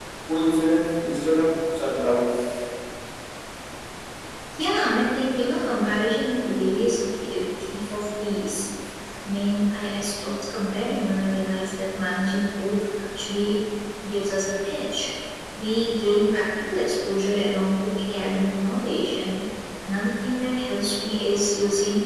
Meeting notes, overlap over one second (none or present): none